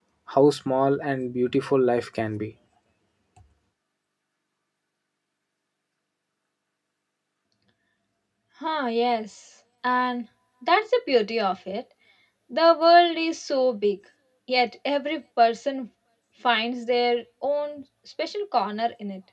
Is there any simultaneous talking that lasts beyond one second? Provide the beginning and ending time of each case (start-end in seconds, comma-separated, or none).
none